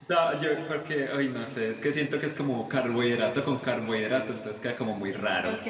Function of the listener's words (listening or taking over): taking over